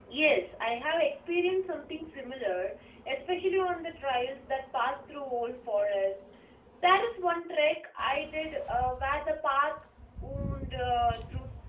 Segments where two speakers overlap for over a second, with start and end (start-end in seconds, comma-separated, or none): none